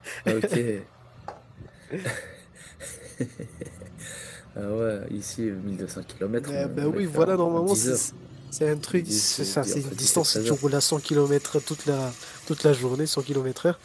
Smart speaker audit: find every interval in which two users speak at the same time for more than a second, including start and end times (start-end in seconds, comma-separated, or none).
6.4-8.1, 8.9-10.6